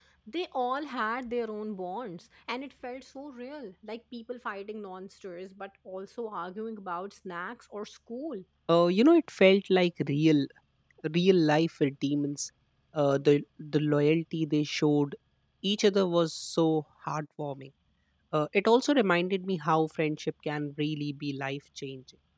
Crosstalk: none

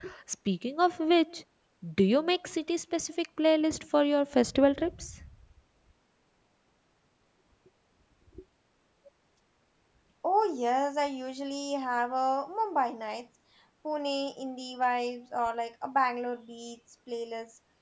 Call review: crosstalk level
none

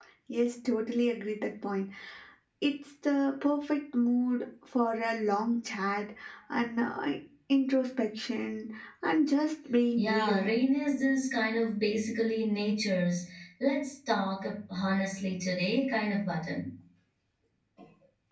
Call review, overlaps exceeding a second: none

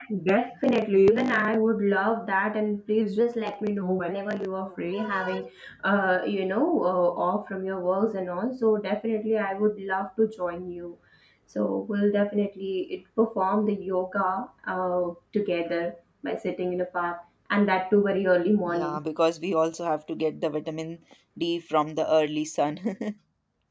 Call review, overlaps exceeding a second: none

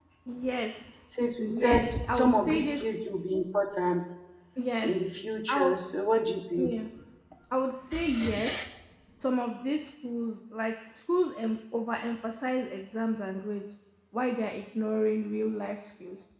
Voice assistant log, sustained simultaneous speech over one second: present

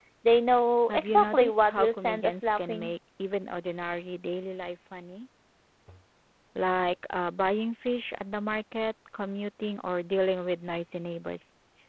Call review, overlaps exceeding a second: present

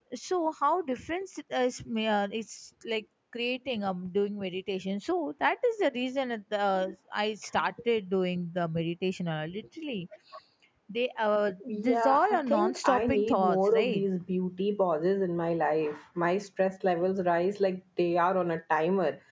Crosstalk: present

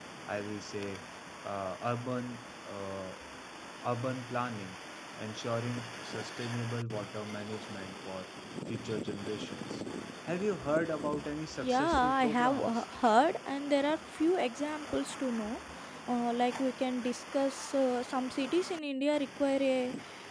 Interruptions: present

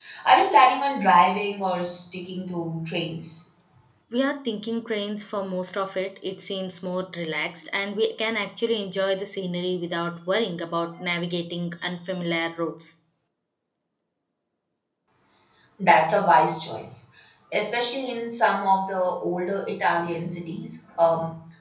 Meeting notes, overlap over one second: none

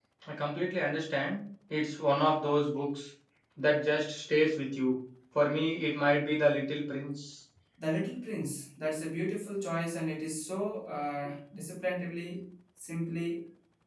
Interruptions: none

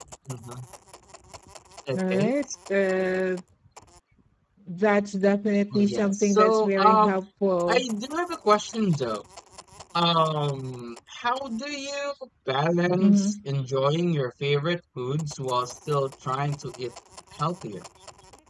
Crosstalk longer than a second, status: present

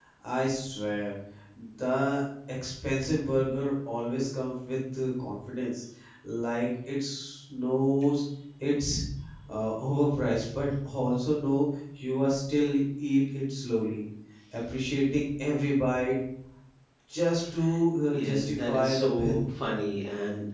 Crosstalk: present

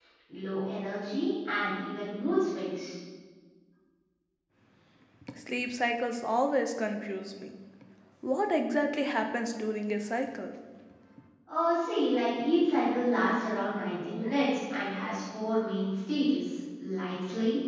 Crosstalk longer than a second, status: none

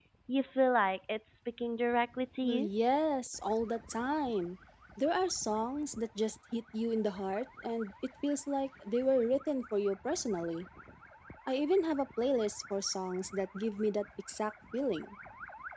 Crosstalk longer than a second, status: none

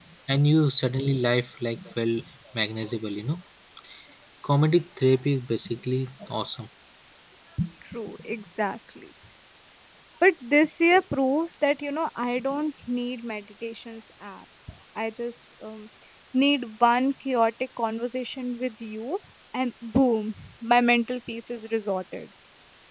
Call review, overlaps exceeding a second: none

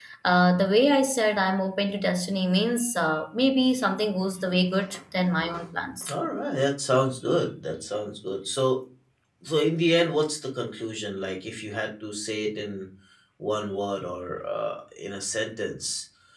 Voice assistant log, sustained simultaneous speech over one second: none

